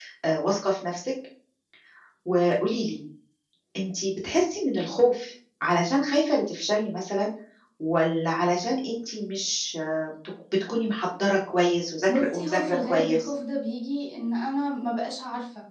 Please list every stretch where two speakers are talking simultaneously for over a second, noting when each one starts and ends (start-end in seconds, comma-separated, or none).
12.1-13.3